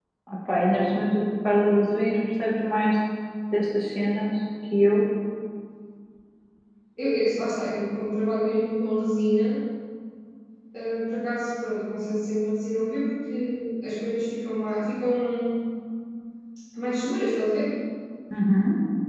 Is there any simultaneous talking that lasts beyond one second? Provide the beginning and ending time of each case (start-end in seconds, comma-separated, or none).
none